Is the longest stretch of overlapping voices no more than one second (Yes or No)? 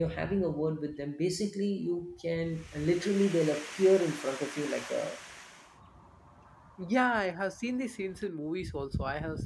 Yes